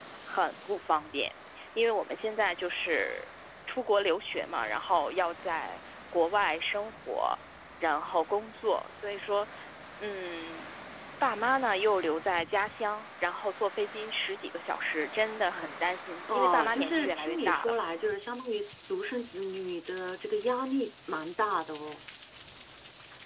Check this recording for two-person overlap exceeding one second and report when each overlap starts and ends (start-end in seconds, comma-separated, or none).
16.3-17.7